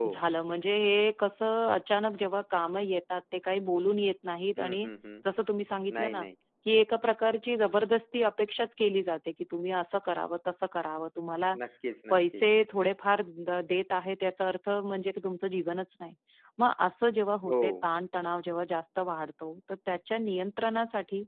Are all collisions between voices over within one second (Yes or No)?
Yes